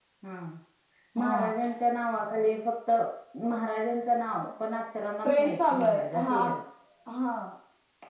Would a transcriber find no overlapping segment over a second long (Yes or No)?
No